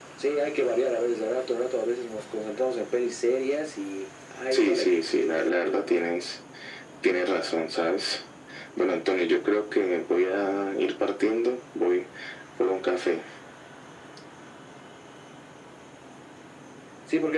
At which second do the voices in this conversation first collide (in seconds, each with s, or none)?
4.5 s